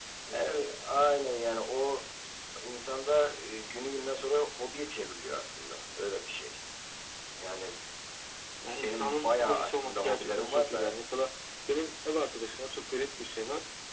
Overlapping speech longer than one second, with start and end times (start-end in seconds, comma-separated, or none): 8.8-10.9